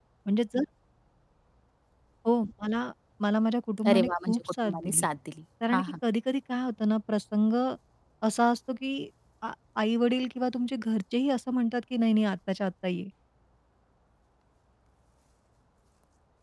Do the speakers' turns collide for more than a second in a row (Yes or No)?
Yes